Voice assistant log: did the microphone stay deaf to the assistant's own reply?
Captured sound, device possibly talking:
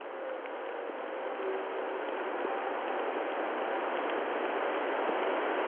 Yes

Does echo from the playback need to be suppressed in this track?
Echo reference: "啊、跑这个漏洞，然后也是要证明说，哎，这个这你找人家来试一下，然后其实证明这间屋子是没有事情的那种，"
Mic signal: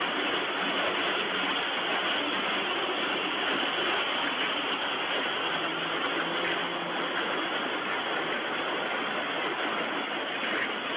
No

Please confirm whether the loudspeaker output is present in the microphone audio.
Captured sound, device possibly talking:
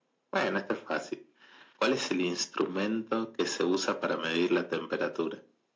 Yes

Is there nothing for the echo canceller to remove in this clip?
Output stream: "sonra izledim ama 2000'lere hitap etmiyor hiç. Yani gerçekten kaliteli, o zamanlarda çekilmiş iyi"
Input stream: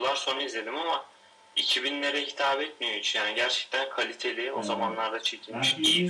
No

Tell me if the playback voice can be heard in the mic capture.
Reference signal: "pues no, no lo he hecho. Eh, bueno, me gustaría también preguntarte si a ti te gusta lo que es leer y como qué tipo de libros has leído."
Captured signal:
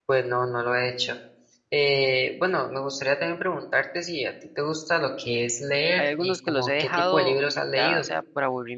Yes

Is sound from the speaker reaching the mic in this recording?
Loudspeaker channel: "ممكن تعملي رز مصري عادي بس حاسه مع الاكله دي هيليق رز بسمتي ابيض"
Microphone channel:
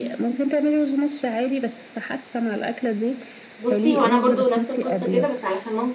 Yes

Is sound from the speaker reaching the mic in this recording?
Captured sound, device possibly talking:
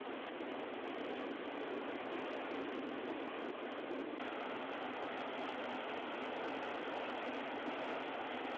No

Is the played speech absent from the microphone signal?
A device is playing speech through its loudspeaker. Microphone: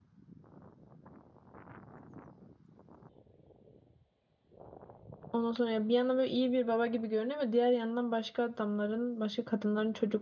Yes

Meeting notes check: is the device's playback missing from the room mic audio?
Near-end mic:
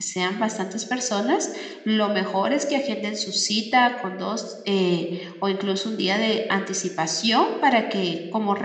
Yes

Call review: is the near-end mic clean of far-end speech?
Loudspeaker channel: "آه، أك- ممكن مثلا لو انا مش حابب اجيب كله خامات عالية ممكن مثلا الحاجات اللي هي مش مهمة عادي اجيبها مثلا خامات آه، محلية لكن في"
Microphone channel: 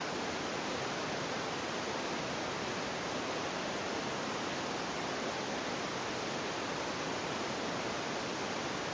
Yes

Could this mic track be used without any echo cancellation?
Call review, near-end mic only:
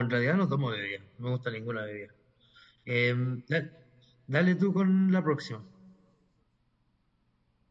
Yes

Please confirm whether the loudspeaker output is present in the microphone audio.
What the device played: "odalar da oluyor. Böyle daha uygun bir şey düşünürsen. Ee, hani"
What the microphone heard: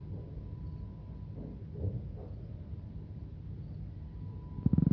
No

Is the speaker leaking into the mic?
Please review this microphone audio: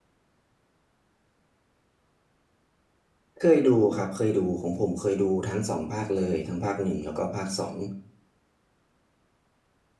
No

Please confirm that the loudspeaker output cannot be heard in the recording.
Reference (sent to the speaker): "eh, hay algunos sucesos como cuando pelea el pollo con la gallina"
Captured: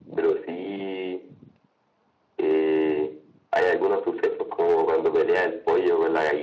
No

